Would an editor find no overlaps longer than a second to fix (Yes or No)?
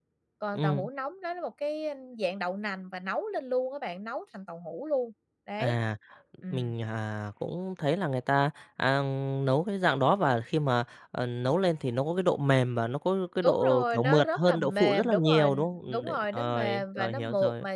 No